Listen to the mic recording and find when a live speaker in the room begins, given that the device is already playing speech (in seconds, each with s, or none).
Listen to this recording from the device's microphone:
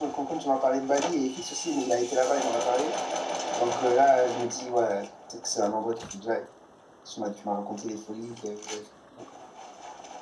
none